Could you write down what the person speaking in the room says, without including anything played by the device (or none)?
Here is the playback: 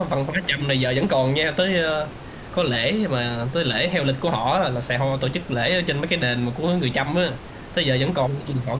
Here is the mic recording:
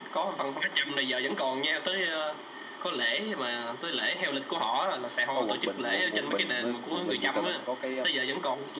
có Quảng Bình quận Quảng Bình với Quảng Bình thì sao ta có cái um,